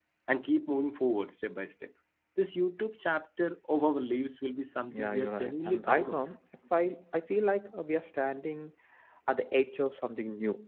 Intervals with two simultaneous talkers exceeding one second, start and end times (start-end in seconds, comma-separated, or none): 4.9-6.2